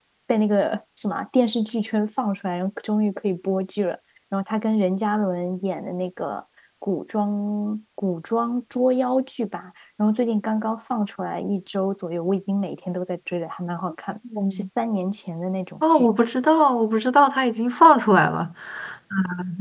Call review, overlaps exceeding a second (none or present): none